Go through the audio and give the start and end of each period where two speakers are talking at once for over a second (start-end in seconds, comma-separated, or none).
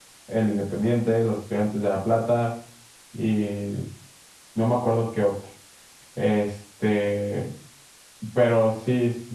none